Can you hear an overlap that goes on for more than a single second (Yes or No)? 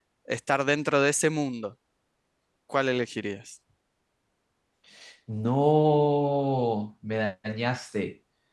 No